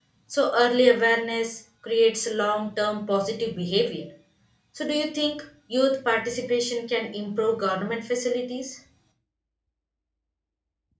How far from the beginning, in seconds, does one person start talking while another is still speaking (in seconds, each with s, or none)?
none